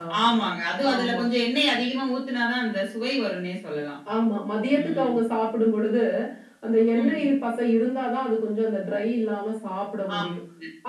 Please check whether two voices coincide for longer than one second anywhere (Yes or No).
No